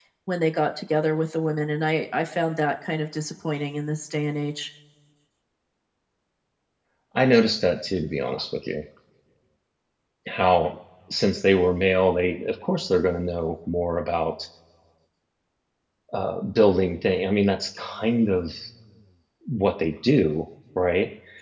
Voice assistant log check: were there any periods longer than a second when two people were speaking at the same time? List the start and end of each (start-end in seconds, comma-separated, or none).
none